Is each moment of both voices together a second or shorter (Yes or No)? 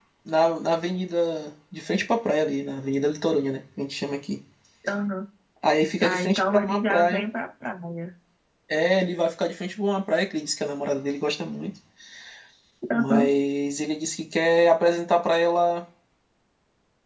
No